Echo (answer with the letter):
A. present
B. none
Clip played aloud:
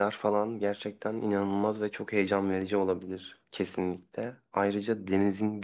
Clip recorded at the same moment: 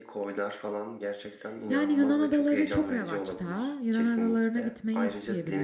A